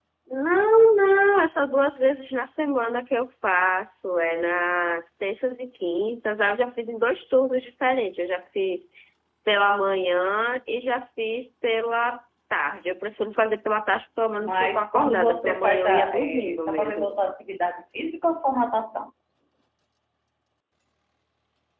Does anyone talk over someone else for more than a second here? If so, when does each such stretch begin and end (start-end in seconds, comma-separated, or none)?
14.4-17.1